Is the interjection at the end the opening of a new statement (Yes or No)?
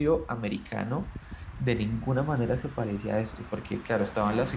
No